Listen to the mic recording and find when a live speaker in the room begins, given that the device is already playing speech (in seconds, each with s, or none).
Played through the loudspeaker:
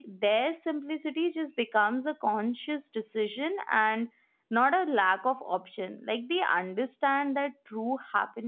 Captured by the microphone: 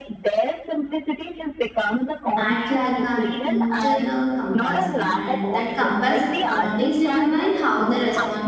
2.4 s